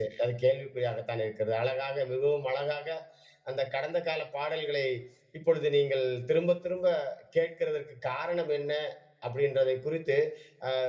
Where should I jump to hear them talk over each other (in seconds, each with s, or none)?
none